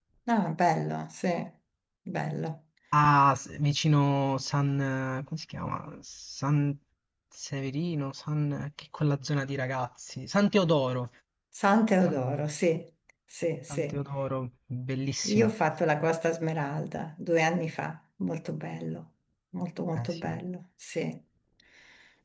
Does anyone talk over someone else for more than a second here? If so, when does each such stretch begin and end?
none

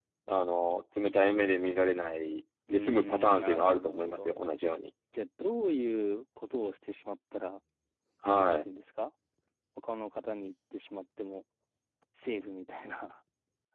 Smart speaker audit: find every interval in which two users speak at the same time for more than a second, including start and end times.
2.7-4.3

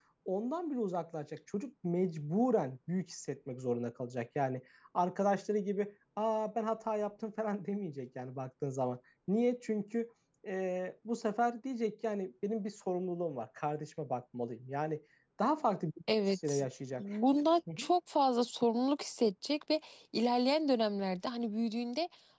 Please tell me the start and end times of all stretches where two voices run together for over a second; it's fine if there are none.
none

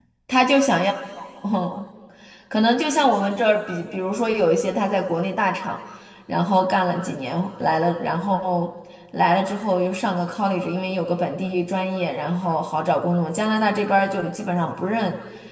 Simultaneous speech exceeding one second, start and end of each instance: none

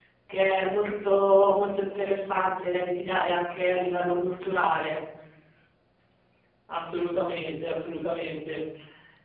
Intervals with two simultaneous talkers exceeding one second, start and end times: none

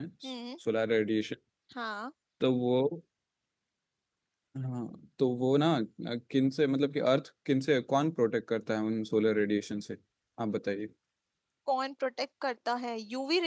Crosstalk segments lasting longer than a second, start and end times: none

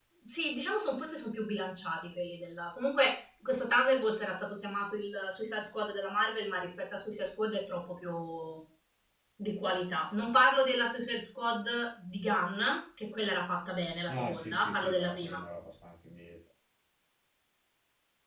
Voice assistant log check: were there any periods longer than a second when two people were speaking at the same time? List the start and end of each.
14.1-15.4

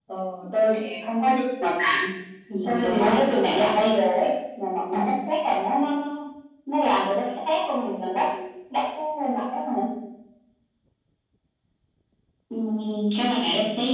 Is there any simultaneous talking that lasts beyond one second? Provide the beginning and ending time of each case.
2.6-3.9

